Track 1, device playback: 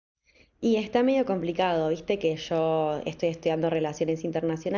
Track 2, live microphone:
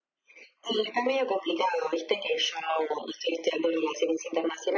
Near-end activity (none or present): none